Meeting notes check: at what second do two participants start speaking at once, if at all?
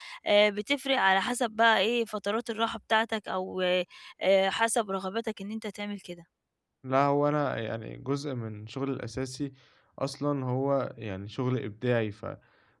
none

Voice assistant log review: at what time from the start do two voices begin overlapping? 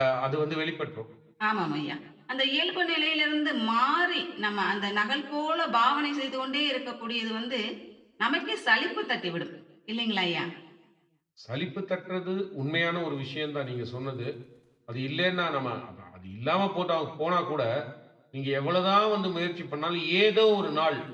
none

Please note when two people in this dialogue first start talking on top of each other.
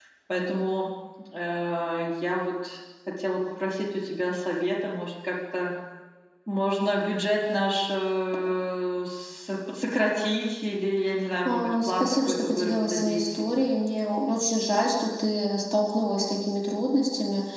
11.4 s

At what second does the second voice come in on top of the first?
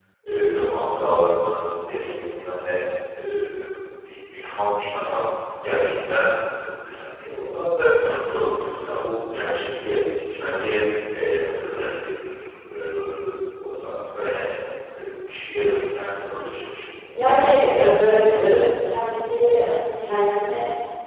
17.1 s

